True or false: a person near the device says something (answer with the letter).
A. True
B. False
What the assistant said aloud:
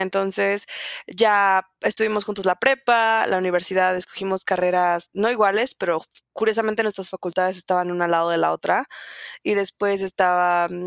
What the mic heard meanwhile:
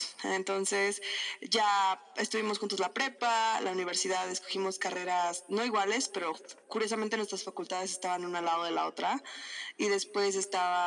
B